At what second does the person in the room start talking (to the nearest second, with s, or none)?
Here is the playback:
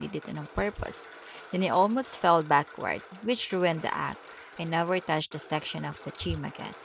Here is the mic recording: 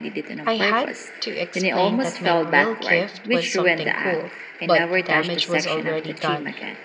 0 s